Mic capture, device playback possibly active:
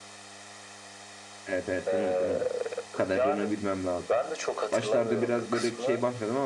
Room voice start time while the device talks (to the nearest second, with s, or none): 1 s